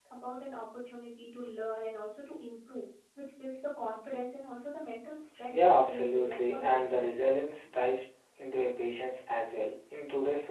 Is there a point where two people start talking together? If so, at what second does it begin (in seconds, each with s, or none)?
5.5 s